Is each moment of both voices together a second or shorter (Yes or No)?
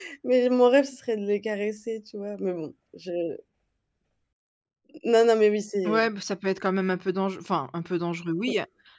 Yes